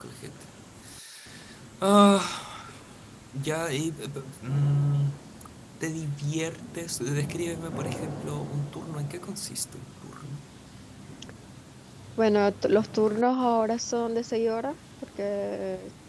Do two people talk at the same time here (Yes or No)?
No